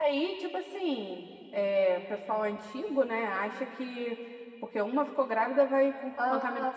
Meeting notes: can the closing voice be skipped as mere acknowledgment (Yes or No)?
No